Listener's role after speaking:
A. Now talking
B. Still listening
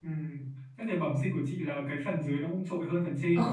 A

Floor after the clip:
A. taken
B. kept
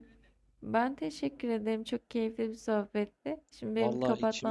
A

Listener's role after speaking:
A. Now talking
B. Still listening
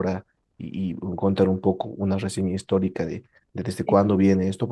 B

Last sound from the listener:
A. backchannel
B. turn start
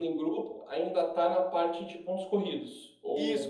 B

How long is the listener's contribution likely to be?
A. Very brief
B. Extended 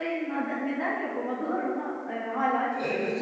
B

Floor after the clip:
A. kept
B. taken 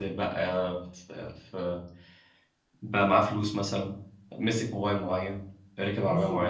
B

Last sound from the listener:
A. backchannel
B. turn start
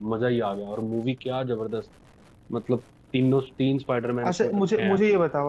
B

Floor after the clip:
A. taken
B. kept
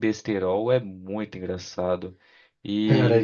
A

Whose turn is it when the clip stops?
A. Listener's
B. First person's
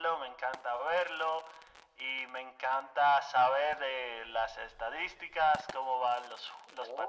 B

